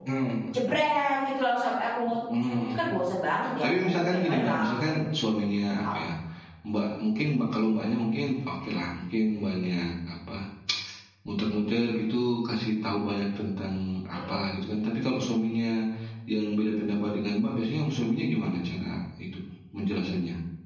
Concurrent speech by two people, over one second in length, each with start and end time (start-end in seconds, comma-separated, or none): 3.6-5.0